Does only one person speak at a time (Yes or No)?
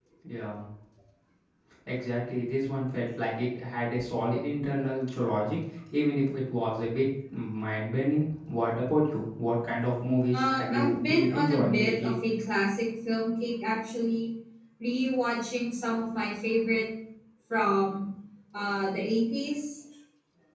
No